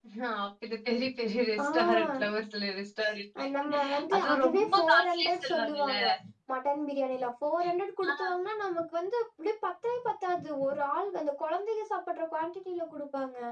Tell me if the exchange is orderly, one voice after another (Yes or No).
No